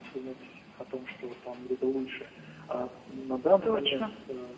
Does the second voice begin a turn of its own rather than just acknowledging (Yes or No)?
No